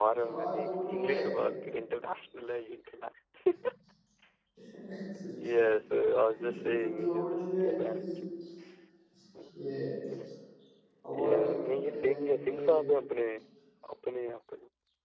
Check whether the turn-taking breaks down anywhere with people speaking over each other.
Yes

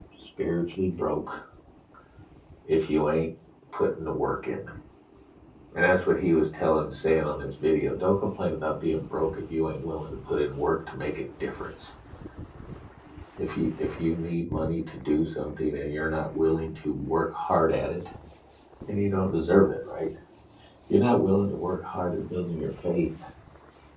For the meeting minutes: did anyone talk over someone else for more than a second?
No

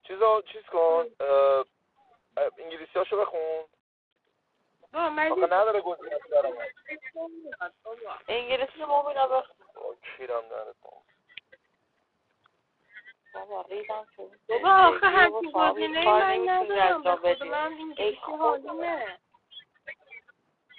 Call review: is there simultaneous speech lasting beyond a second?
Yes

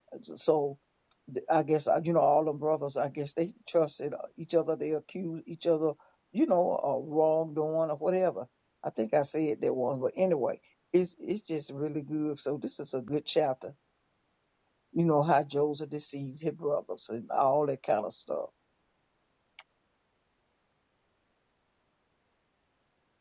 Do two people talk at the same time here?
No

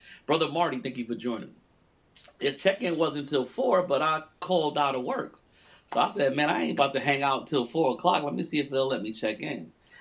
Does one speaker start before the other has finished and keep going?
No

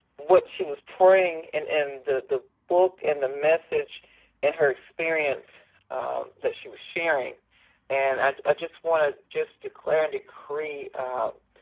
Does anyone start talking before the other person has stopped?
No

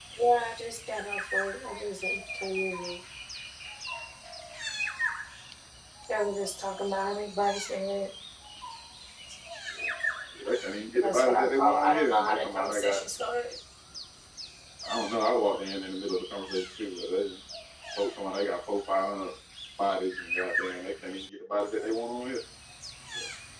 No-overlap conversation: No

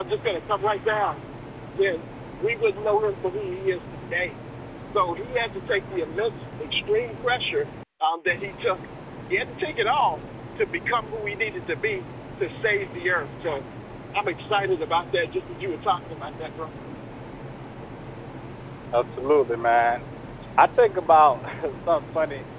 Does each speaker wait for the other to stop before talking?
Yes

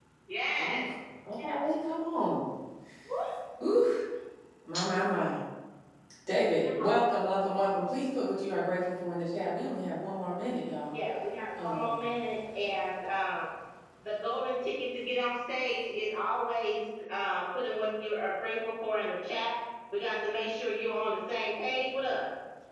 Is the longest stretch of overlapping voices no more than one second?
Yes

